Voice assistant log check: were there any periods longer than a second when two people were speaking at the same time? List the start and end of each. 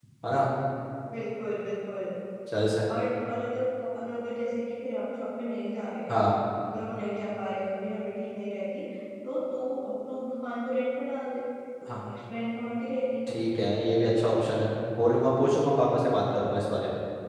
none

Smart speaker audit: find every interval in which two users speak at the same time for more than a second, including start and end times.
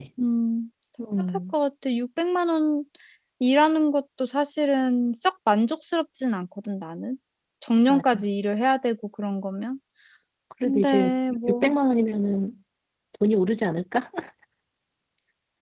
none

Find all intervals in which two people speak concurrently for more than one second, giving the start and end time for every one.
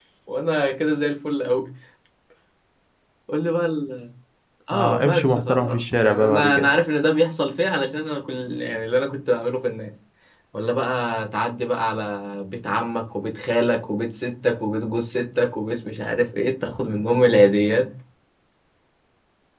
4.7-6.7

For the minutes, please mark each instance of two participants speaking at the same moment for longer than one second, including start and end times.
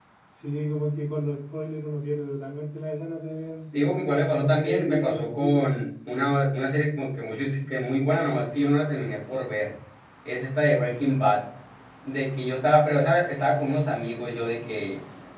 4.4-5.7

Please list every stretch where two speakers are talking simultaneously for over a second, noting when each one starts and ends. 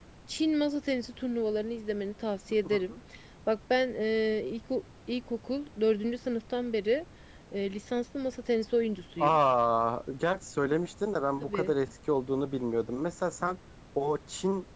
none

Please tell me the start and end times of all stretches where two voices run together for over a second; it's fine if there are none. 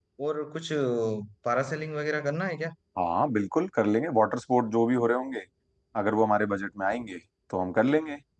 none

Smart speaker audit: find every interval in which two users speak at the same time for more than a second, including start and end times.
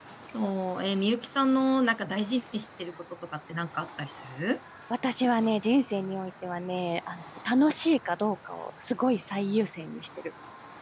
none

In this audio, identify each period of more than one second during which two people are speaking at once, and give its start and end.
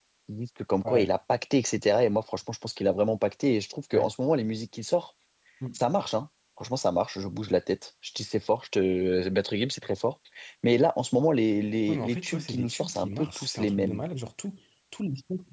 11.9-14.0

